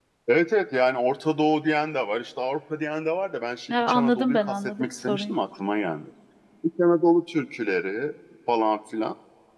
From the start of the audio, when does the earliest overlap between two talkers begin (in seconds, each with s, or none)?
3.7 s